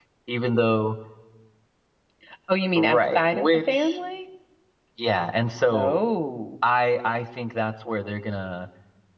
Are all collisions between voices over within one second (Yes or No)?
No